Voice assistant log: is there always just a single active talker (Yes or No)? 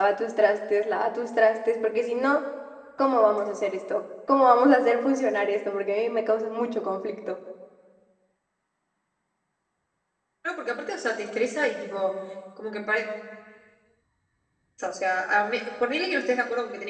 Yes